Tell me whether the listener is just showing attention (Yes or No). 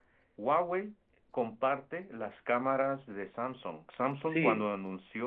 Yes